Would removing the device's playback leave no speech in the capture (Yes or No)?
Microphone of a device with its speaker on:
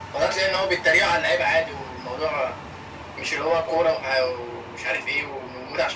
Yes